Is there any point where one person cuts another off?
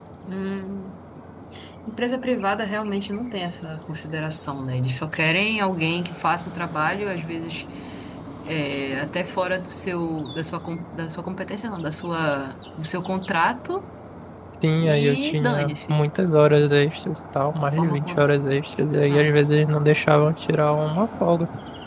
Yes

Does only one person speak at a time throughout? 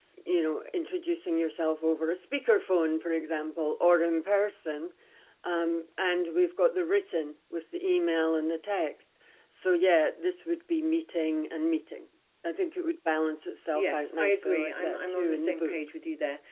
No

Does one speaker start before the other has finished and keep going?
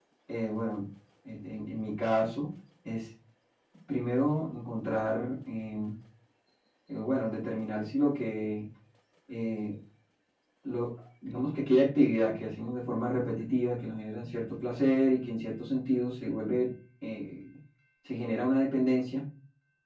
No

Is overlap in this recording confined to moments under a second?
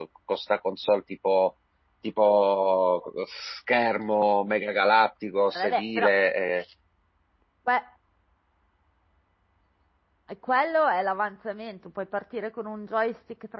Yes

